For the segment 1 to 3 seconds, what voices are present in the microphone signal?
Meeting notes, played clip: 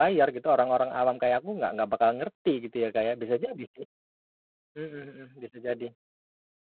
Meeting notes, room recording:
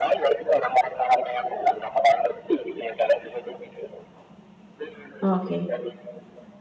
echo only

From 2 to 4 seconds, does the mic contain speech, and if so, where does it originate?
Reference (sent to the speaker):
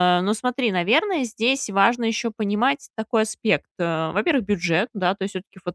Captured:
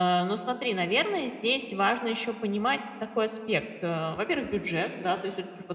echo only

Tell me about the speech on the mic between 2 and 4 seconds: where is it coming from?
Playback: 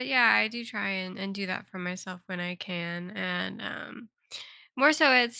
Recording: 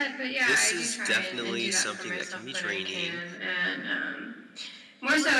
both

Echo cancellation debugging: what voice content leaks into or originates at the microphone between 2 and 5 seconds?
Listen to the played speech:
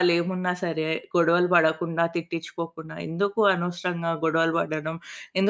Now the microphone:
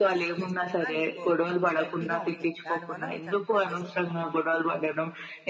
both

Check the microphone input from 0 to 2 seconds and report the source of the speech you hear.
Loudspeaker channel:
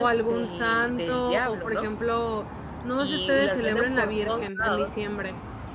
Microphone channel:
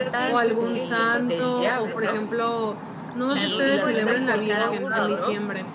both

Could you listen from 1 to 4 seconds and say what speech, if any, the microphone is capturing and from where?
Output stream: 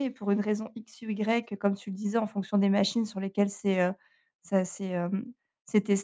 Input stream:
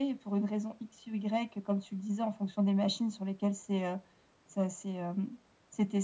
echo only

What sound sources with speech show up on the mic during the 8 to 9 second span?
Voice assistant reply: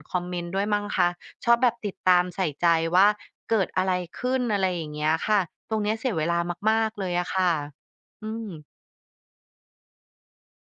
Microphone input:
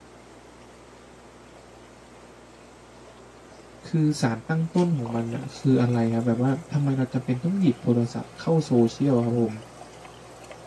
user only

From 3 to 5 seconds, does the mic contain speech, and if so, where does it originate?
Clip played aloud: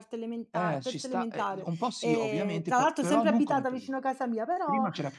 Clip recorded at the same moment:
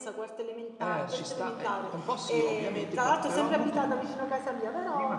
echo only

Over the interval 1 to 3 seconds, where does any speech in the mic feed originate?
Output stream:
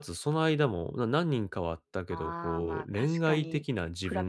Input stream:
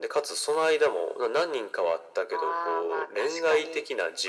echo only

